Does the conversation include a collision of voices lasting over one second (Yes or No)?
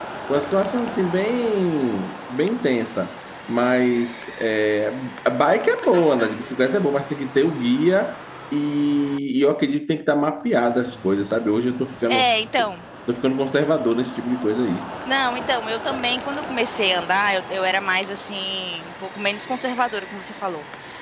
No